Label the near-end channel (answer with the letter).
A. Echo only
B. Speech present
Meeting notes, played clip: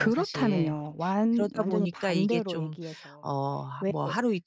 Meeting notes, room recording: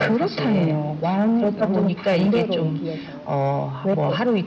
B